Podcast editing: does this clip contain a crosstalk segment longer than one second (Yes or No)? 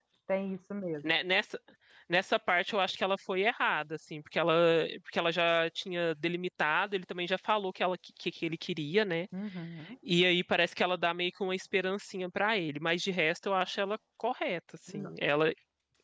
No